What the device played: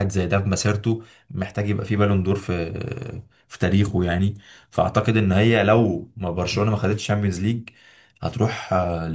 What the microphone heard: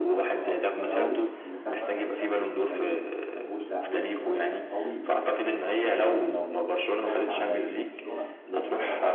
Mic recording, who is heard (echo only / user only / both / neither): both